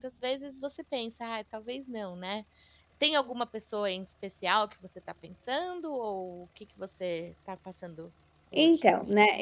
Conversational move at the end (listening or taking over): taking over